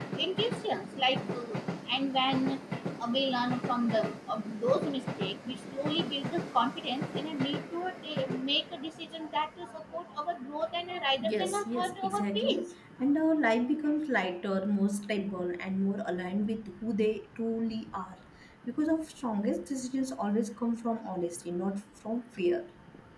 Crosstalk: present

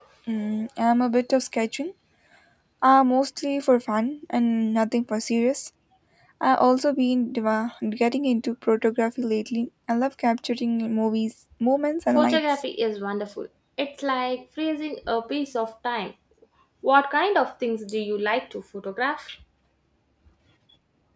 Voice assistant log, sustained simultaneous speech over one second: none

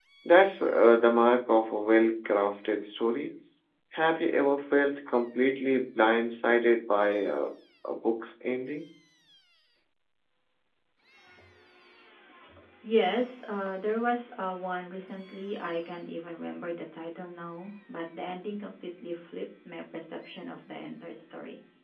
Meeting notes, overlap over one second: none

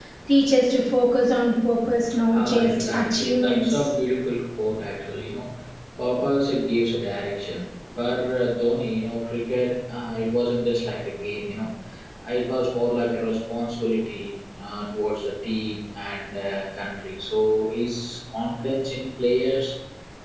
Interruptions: present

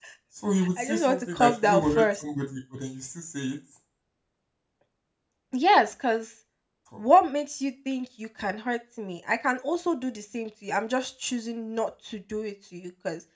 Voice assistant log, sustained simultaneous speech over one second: present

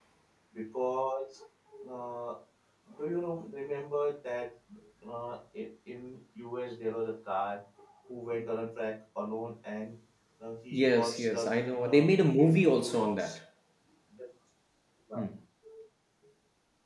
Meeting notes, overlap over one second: present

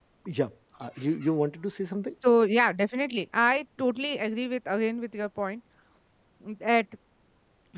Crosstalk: none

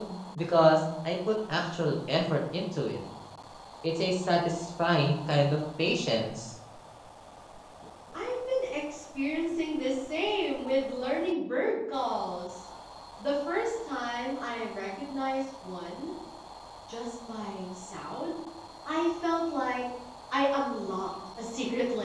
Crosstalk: none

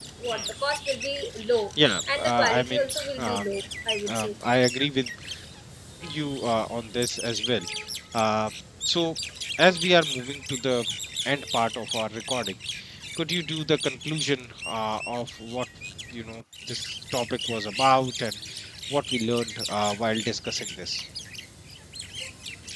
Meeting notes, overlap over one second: present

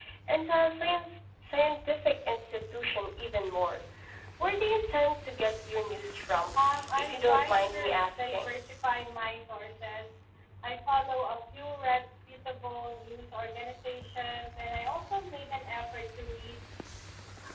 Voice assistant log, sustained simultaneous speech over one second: present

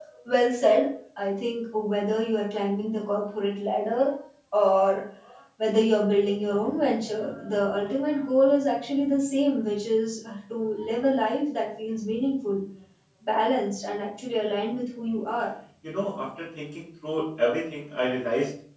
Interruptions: none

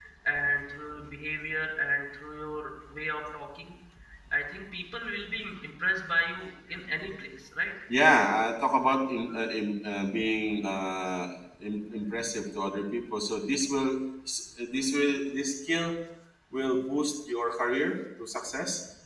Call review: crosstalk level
none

